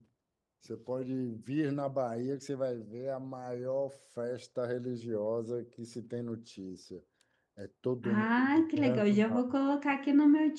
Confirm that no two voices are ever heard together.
No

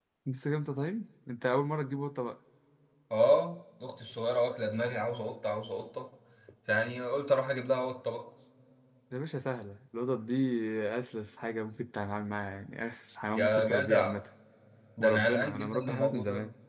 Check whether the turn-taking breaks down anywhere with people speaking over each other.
Yes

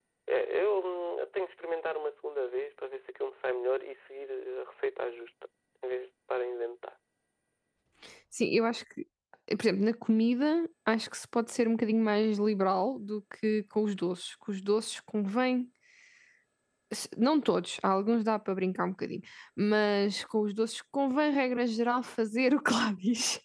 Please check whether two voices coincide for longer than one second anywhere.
No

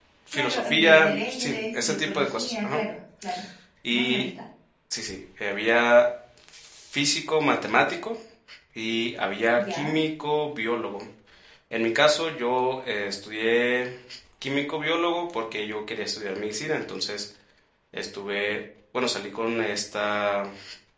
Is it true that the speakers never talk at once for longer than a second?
No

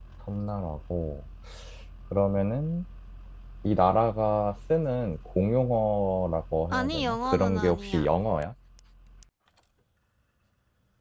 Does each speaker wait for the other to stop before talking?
No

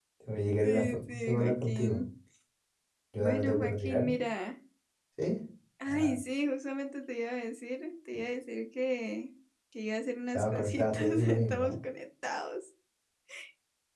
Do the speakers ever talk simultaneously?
Yes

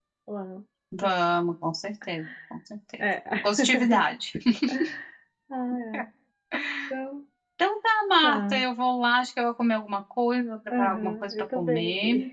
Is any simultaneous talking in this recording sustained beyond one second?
Yes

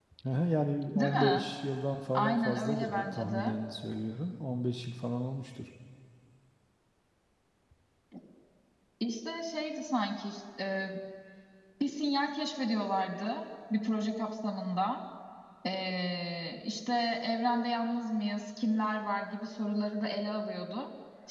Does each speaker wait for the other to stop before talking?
No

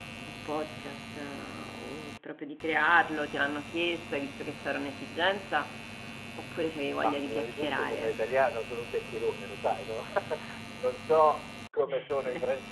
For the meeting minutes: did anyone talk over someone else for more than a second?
Yes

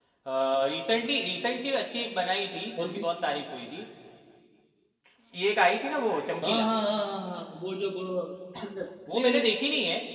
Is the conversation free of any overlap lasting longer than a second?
Yes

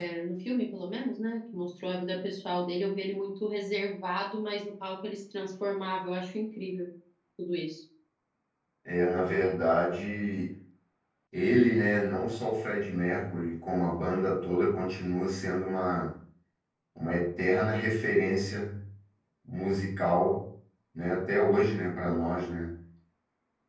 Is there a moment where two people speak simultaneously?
No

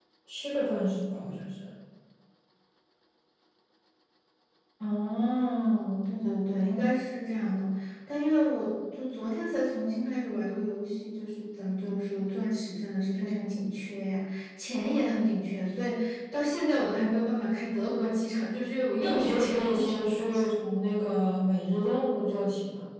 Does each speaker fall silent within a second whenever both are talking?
No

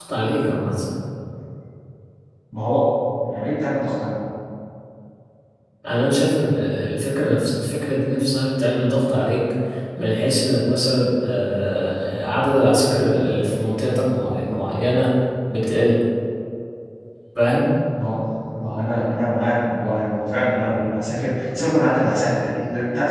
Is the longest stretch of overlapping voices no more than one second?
Yes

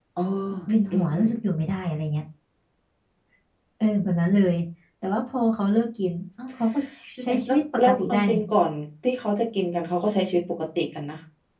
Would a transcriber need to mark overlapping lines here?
Yes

